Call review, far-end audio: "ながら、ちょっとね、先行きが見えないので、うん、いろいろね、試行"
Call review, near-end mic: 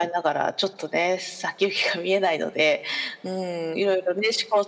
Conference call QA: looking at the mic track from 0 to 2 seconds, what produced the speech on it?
echo only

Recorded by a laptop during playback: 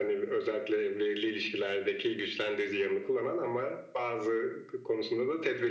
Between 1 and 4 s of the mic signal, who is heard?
echo only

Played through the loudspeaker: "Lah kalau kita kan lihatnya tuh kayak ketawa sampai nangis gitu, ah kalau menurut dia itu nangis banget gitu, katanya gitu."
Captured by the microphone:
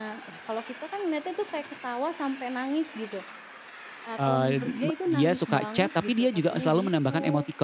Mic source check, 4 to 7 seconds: both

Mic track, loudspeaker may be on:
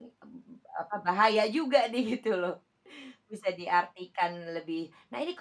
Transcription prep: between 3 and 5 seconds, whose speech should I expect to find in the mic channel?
user only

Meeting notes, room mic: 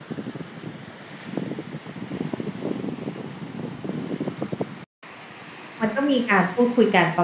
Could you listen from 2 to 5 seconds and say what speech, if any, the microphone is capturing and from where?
neither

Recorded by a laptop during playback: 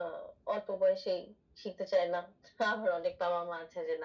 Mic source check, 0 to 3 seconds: echo only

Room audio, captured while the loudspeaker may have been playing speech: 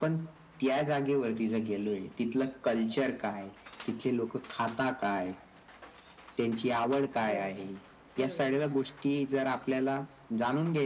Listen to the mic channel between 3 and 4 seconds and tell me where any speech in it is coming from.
echo only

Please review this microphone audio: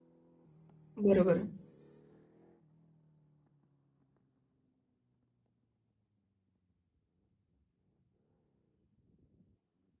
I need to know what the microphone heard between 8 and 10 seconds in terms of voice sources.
neither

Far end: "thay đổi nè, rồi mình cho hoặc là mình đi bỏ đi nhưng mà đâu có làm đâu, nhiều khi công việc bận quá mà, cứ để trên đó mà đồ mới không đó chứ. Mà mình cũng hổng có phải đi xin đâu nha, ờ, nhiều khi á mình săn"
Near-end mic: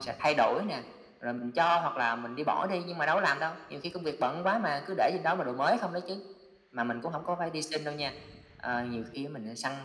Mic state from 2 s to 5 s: echo only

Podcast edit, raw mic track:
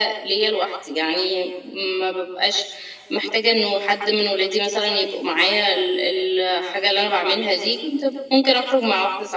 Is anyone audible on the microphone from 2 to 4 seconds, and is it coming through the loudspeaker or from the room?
echo only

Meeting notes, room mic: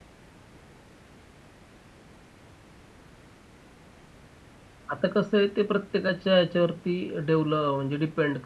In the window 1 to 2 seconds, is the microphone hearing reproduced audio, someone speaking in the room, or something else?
neither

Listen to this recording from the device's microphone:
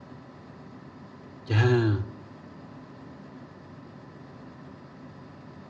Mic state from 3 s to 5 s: neither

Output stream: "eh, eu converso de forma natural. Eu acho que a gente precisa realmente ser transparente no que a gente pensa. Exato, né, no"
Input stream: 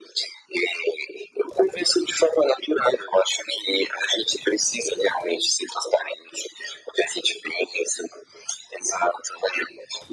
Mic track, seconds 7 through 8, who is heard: echo only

